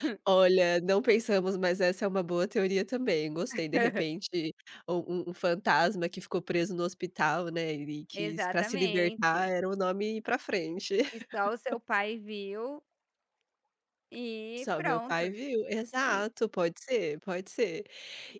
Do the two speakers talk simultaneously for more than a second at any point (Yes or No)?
Yes